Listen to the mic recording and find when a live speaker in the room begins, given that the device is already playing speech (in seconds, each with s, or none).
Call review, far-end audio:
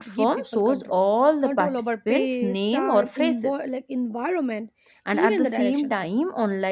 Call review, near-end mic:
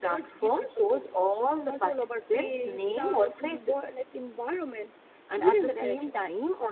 none